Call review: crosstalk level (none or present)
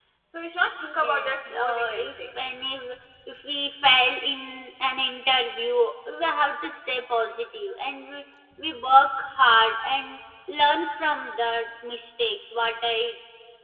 present